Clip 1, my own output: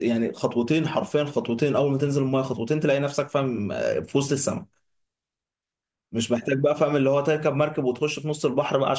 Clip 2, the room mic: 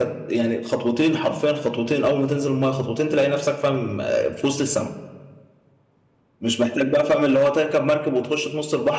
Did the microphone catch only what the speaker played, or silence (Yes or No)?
Yes